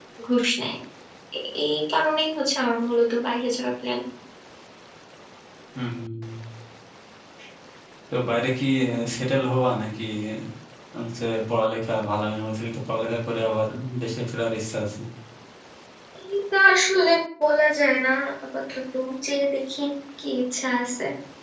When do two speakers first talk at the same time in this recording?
none

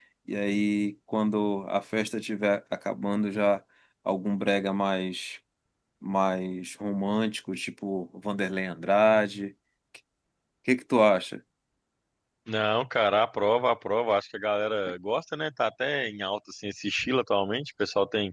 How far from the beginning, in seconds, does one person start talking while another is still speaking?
none

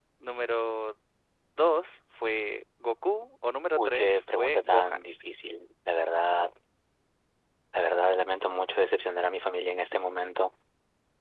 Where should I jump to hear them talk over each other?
3.8 s

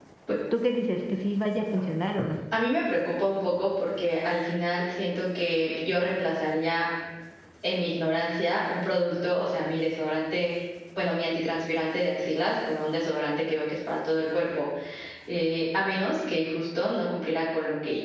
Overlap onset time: none

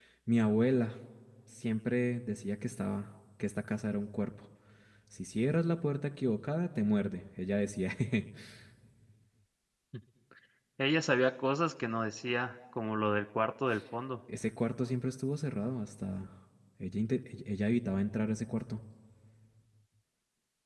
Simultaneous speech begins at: none

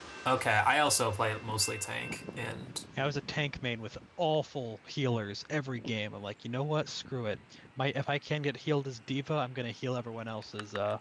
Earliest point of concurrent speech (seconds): none

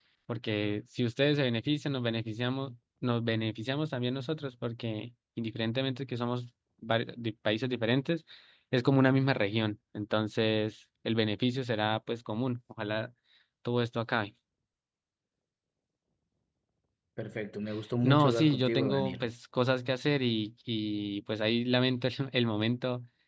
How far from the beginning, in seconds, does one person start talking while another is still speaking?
18.0 s

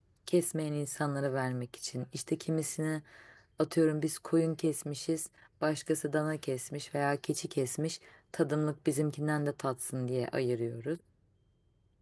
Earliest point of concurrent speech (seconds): none

